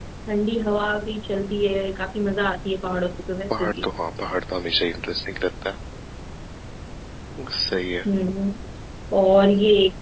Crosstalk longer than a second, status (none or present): none